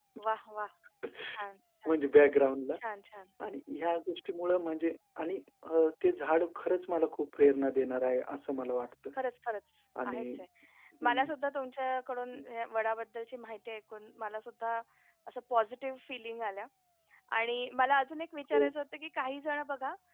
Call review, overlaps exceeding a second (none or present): none